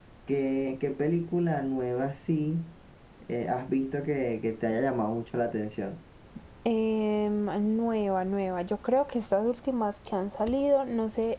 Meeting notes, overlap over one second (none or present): none